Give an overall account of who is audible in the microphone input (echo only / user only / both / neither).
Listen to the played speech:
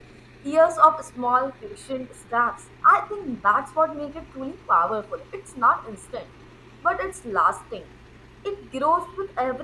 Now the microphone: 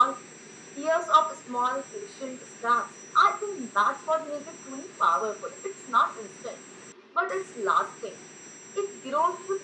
echo only